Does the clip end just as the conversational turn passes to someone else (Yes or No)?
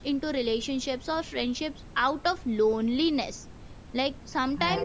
No